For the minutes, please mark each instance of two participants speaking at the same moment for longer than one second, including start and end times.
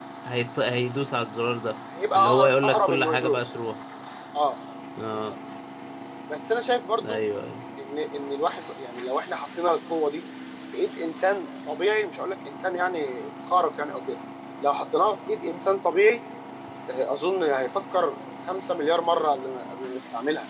2.1-3.4

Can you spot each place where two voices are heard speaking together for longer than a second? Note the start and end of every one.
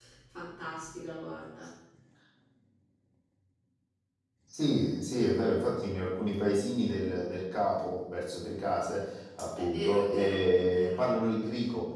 9.6-11.0

